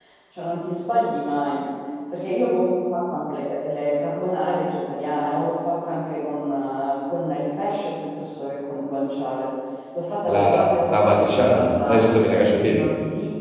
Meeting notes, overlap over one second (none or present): present